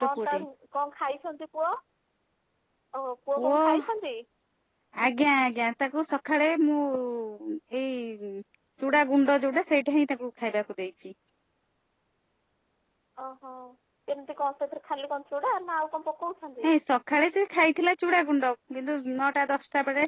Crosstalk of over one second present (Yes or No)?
No